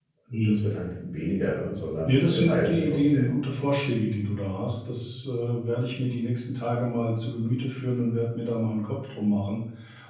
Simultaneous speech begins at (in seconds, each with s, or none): 2.0 s